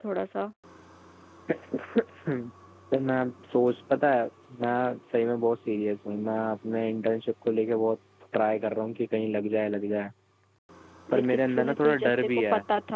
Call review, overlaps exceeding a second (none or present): present